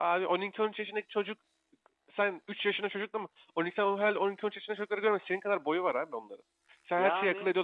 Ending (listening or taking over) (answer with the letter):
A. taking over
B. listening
B